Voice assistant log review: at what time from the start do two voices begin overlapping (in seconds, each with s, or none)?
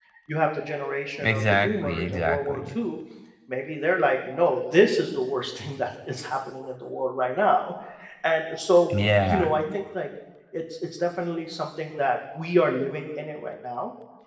1.2 s